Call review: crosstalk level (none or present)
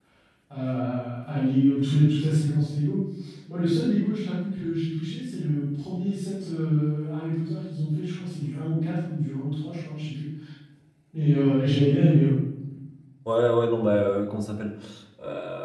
none